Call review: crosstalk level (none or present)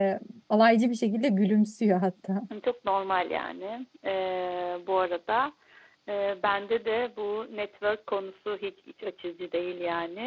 none